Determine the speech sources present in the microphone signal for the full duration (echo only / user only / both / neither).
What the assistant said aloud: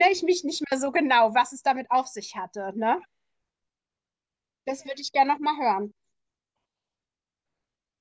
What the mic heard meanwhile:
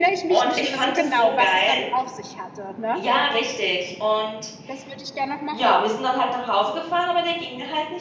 both